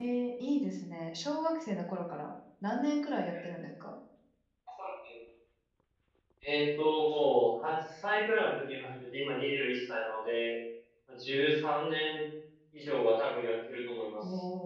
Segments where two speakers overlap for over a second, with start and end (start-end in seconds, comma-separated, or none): none